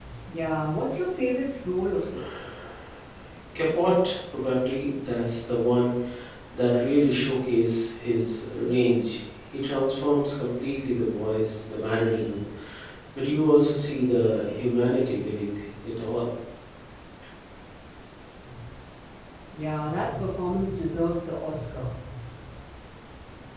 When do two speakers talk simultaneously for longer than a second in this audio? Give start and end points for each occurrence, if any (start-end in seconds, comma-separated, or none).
none